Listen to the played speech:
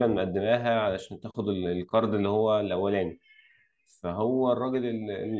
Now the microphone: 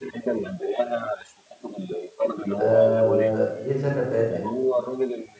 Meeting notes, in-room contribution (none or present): present